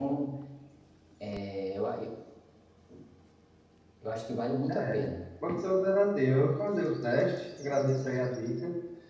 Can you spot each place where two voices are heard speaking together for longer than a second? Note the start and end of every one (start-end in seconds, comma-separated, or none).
none